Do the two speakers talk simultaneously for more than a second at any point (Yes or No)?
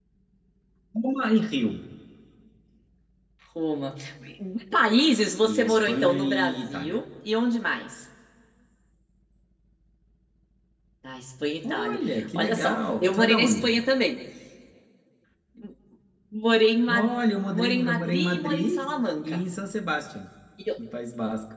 Yes